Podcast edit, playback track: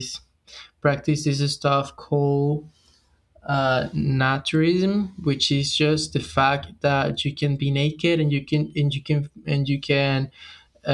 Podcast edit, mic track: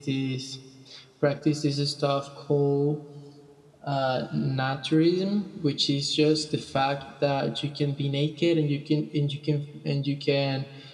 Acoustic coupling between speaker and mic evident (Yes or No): Yes